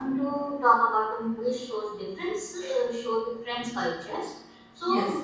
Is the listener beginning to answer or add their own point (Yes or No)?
No